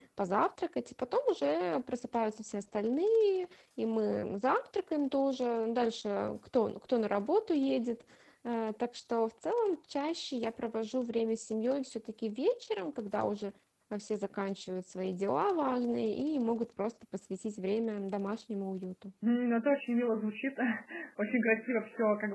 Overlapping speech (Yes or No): No